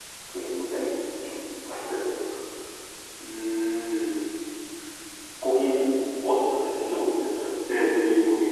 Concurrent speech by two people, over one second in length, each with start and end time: none

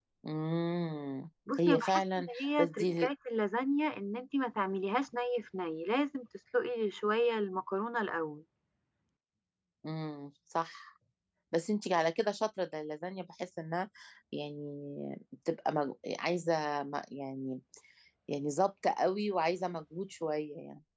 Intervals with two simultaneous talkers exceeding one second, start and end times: 1.6-3.1

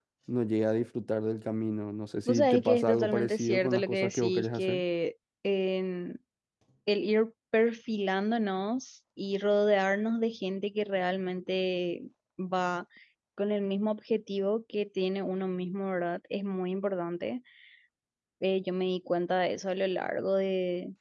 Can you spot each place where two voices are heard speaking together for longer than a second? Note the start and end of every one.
2.3-4.8

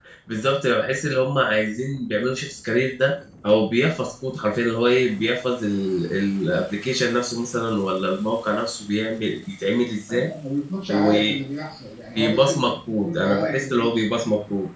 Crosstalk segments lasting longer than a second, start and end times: 12.2-14.2

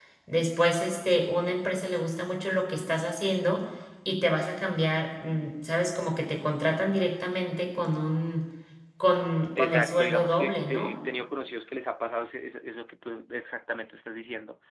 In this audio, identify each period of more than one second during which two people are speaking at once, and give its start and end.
9.6-10.9

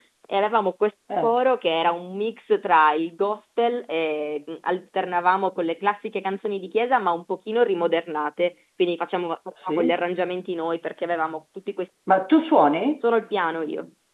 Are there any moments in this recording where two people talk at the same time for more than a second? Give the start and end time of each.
none

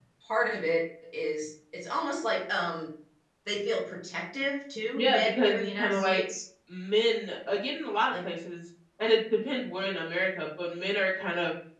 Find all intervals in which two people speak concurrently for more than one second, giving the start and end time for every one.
4.9-6.2

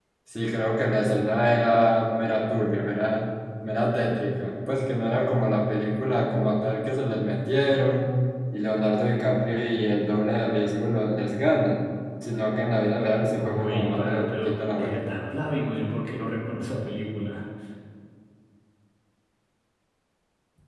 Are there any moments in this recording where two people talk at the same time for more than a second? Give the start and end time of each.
13.3-15.0

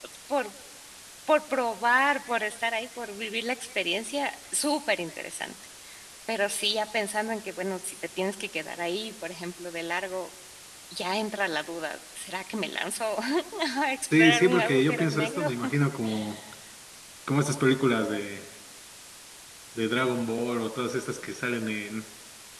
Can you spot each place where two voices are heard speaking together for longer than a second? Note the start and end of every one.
14.1-15.5

